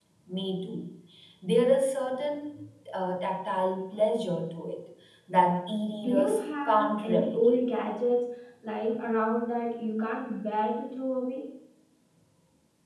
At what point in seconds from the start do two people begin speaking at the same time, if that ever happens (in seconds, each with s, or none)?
6.0 s